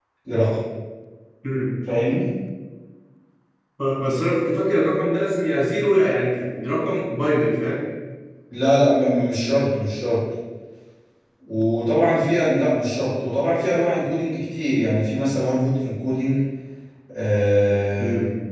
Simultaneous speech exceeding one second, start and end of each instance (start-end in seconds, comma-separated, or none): none